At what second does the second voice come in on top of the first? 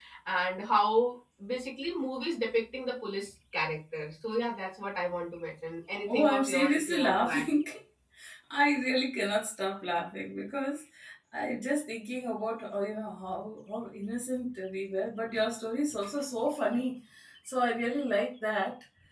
6.1 s

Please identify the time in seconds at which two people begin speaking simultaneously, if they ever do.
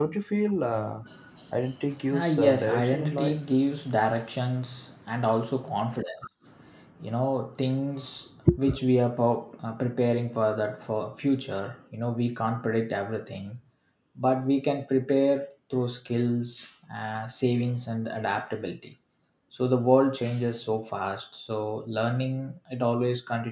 2.2 s

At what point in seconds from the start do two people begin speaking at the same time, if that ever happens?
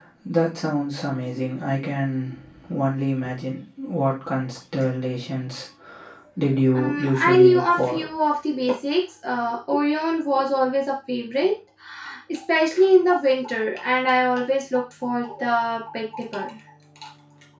6.7 s

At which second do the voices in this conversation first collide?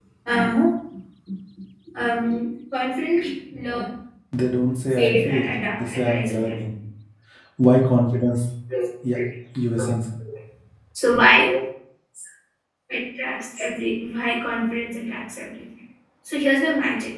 5.0 s

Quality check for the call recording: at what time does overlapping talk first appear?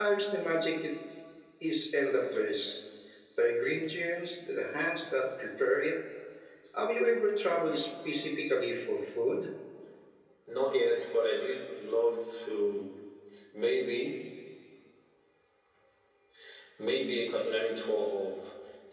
none

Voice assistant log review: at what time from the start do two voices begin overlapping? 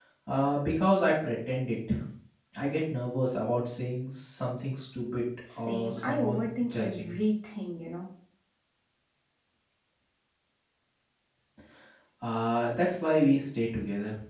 5.7 s

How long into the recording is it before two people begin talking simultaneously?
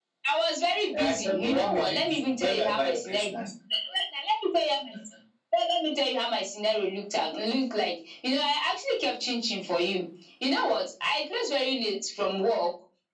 0.9 s

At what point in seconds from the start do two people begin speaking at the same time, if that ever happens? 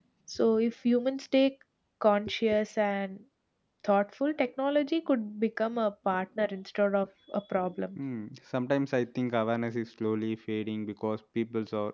none

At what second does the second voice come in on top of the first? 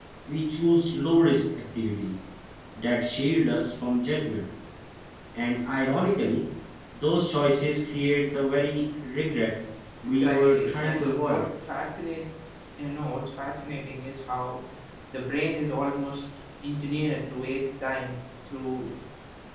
10.1 s

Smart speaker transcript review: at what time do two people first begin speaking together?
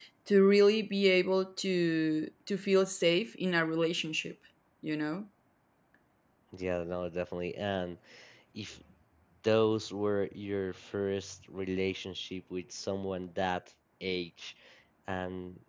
none

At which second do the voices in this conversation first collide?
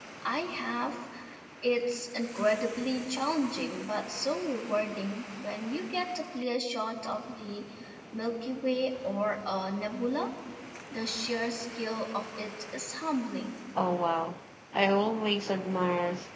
none

